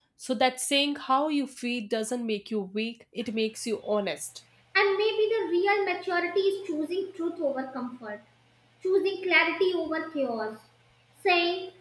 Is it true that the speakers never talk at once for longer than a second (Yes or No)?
Yes